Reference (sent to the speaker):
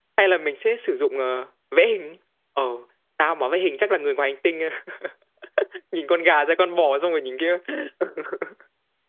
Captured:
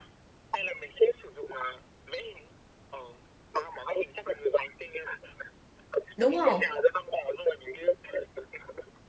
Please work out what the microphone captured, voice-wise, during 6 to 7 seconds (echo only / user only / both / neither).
both